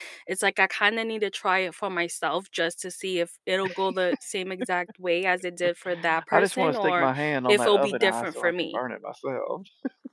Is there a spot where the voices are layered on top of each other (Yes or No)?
Yes